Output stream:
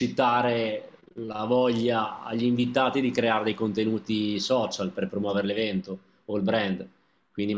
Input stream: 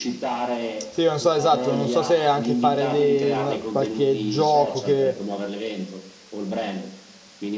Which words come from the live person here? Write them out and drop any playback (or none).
Sì, non so esatto, non so se anche fare dei- una- qualche gioco che,